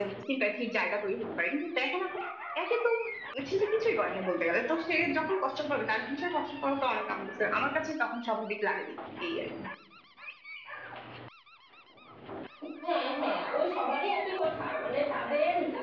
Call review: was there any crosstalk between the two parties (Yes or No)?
No